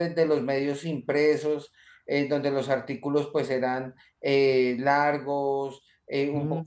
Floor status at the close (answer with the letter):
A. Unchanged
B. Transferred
A